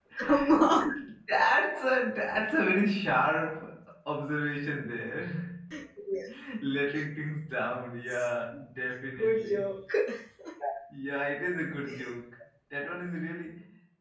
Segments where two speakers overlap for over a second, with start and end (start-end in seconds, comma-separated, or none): none